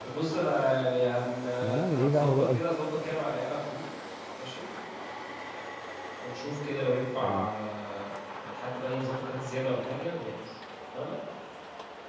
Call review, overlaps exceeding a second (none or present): present